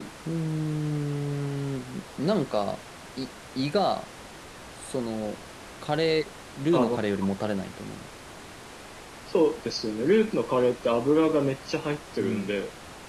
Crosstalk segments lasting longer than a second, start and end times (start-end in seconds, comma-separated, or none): none